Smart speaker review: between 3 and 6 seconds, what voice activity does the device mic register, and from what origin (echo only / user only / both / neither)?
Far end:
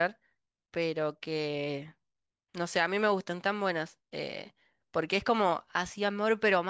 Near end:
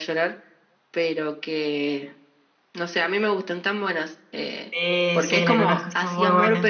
both